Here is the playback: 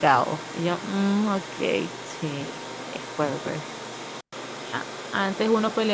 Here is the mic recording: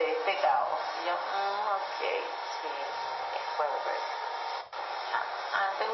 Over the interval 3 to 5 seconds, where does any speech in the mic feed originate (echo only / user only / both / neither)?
echo only